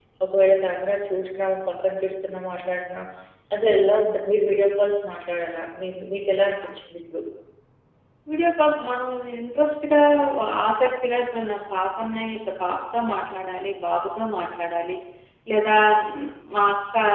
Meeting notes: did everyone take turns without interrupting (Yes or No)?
Yes